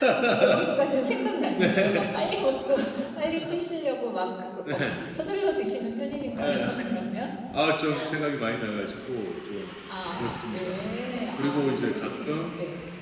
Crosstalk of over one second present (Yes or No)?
Yes